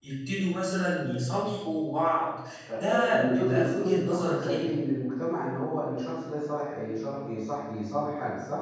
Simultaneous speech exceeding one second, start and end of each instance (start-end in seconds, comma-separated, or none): 2.7-4.7